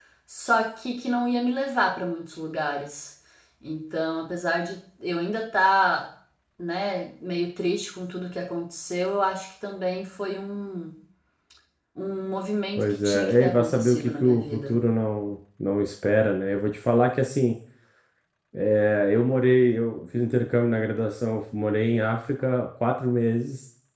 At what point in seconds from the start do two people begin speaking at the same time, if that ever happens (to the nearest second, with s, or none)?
13 s